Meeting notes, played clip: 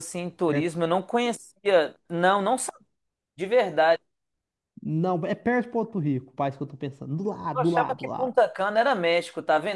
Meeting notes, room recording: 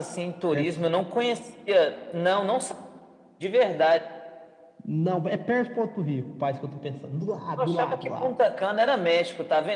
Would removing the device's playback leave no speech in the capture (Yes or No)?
Yes